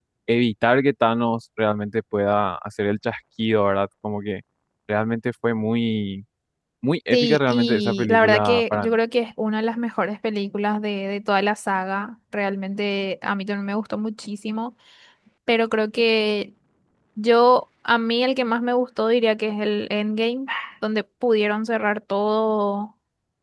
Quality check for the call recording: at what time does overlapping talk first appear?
7.1 s

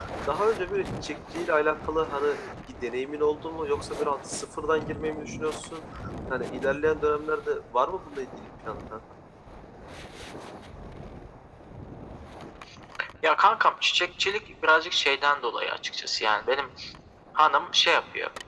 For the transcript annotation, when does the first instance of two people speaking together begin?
none

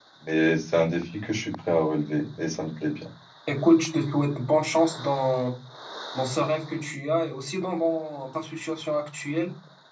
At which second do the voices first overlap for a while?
none

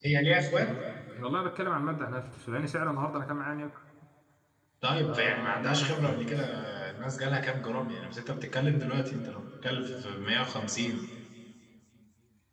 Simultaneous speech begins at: 5.0 s

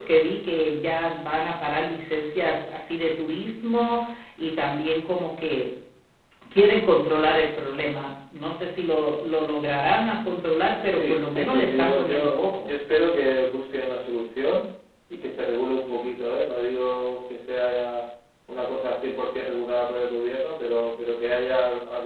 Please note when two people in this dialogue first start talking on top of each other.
10.8 s

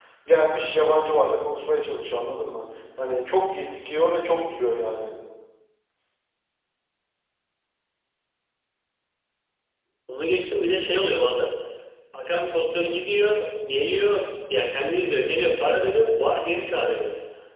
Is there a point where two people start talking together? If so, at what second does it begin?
none

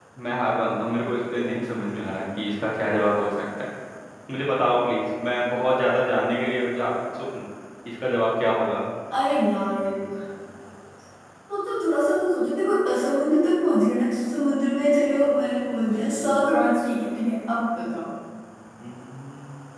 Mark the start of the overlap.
none

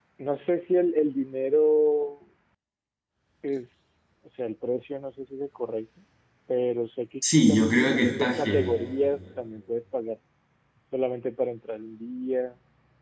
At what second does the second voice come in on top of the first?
7.2 s

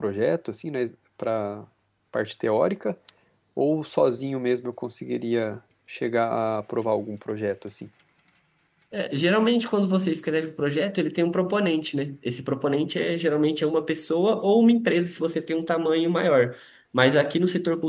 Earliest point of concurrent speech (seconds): none

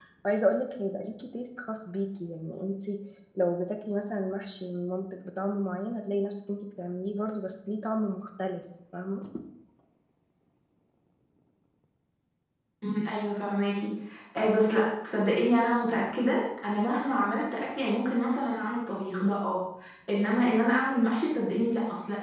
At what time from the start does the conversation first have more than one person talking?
none

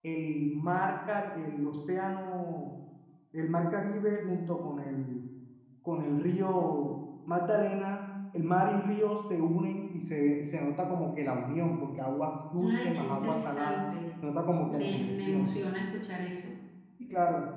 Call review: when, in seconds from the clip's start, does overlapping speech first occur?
12.6 s

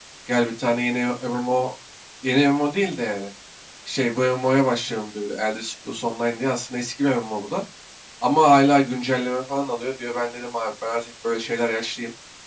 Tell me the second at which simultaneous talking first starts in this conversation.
none

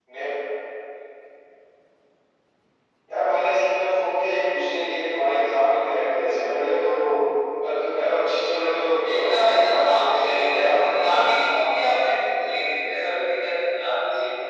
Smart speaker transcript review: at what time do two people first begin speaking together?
9.0 s

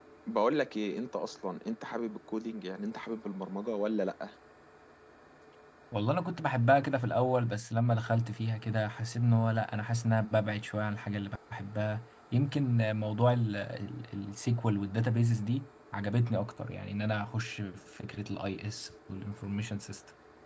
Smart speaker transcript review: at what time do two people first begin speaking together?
none

